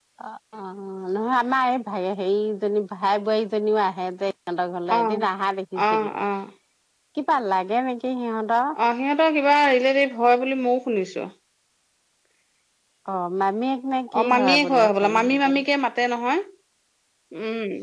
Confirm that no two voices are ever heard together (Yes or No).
No